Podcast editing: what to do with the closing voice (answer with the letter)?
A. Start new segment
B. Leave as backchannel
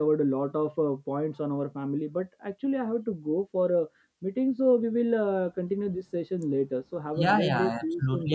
A